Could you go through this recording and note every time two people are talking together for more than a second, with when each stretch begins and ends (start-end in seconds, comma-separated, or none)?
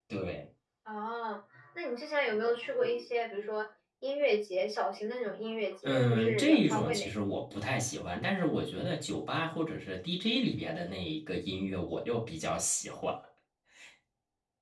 5.8-7.1